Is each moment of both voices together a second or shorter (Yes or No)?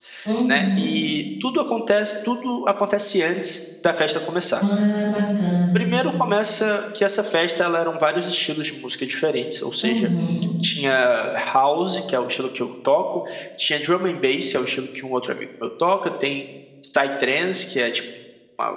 Yes